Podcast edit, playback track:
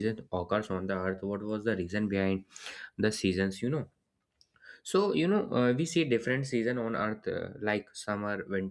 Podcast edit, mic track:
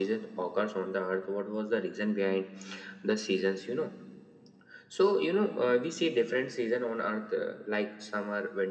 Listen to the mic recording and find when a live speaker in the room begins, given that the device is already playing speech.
none

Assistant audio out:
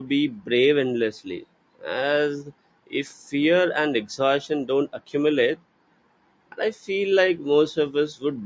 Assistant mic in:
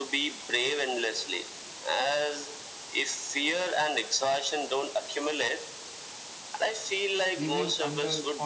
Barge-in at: 7.4 s

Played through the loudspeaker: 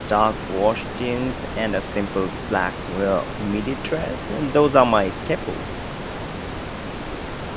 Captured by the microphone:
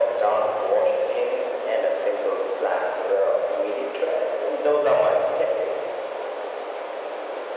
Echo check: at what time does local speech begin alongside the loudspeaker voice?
none

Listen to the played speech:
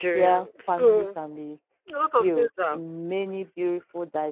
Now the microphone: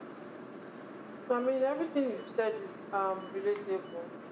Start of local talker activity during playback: 1.3 s

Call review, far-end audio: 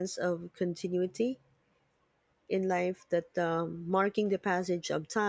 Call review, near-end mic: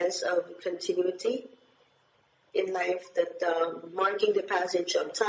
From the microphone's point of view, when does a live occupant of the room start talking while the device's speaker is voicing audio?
none

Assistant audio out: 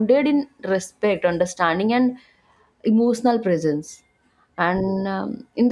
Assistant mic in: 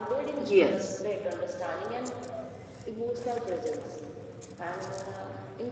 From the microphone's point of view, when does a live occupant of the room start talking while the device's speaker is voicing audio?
0.4 s

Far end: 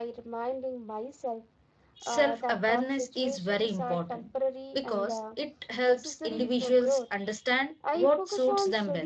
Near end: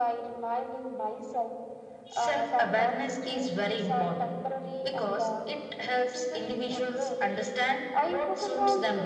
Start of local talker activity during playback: none

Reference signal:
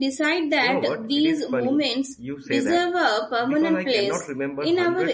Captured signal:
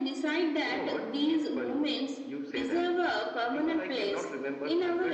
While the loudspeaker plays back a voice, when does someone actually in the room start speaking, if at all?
none

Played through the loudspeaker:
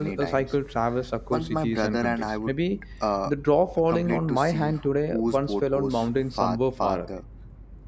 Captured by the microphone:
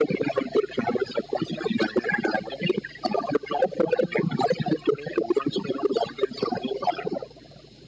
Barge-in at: none

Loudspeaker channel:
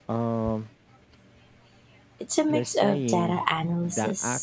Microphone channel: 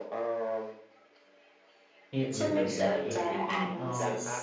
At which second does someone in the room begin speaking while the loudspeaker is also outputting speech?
2.1 s

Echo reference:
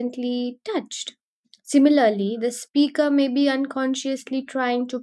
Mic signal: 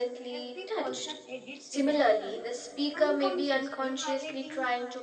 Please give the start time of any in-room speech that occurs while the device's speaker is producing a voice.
0.3 s

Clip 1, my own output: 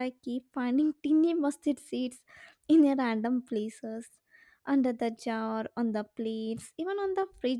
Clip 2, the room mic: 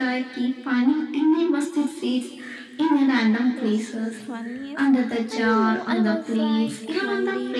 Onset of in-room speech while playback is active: 3.6 s

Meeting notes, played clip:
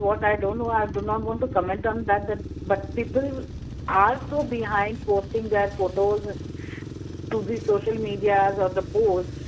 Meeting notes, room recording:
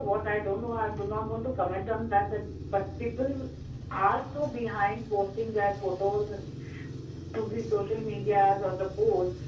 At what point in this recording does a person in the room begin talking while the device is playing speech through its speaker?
none

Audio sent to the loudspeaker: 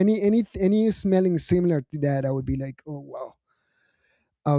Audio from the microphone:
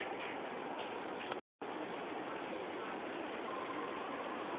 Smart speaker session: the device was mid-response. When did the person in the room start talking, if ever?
none

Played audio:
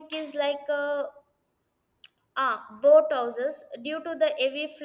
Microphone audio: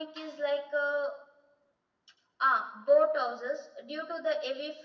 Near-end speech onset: none

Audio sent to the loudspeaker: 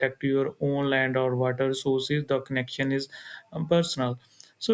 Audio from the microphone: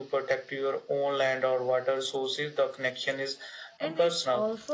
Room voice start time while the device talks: 3.8 s

